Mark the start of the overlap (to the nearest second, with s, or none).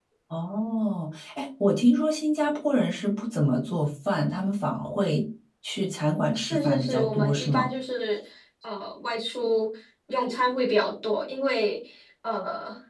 6 s